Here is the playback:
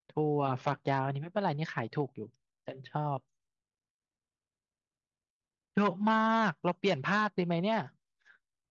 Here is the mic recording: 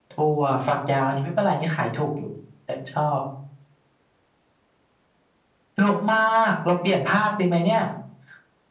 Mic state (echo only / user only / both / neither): echo only